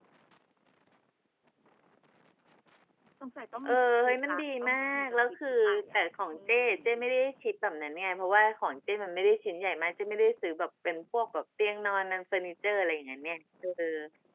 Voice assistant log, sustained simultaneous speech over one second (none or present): present